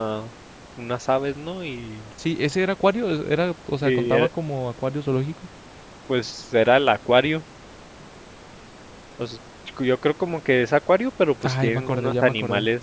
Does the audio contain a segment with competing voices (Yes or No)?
Yes